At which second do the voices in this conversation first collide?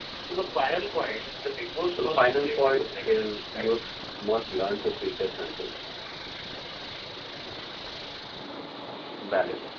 2.0 s

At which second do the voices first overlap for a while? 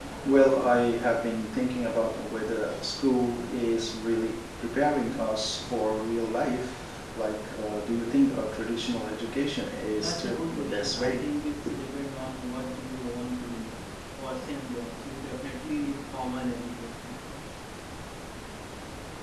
10.0 s

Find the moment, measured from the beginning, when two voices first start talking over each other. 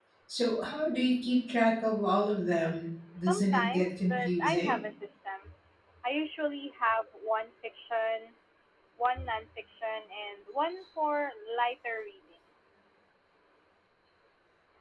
3.3 s

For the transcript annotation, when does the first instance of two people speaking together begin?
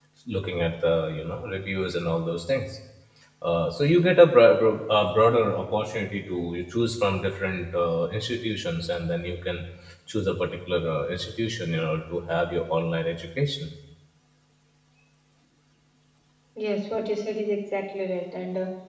none

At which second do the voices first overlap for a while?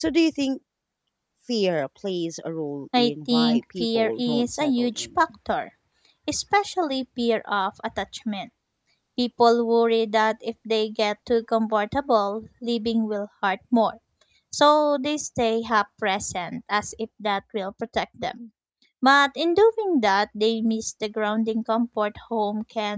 2.9 s

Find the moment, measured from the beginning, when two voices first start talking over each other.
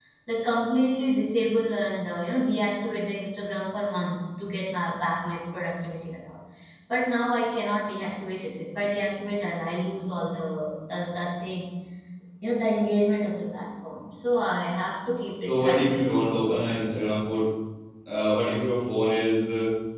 15.4 s

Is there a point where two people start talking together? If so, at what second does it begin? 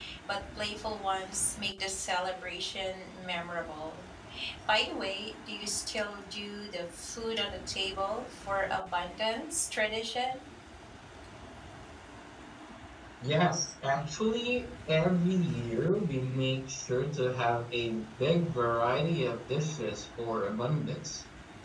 none

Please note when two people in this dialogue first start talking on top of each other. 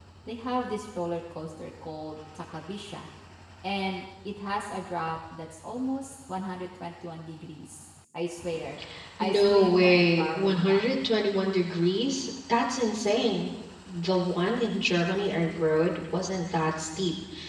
9.2 s

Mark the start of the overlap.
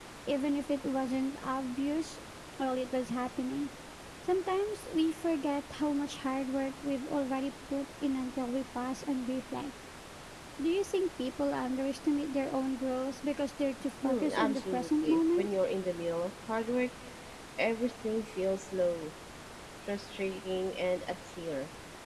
14.0 s

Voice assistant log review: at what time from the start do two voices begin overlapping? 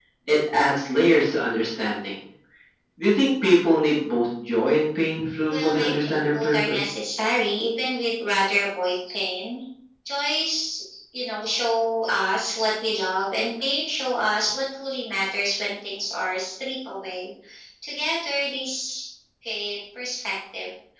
5.5 s

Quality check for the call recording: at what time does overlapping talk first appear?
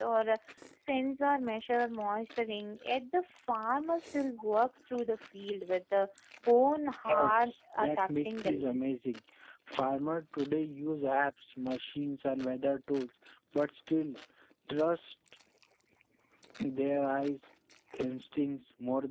7.0 s

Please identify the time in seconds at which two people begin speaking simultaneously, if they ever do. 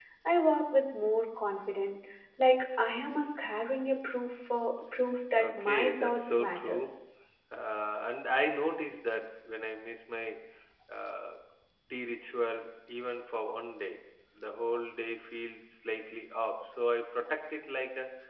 5.4 s

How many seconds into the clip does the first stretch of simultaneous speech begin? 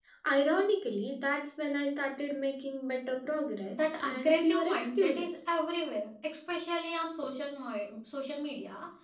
3.7 s

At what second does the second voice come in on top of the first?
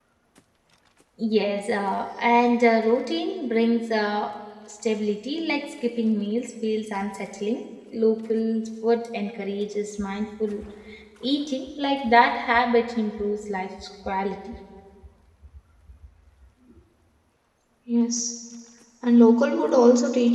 none

